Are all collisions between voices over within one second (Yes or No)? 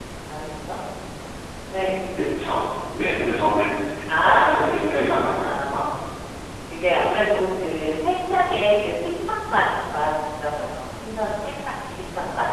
No